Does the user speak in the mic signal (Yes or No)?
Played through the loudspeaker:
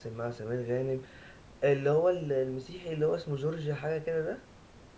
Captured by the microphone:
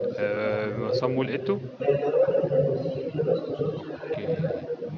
Yes